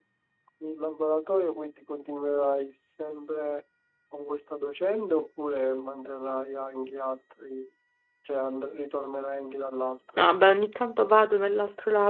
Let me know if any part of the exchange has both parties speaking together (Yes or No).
No